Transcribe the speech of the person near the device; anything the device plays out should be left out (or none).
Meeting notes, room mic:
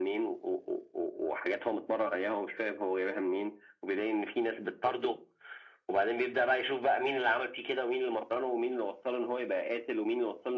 none